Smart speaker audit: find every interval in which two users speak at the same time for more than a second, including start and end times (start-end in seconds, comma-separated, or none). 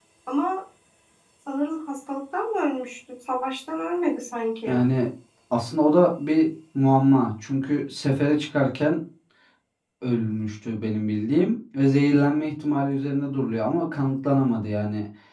none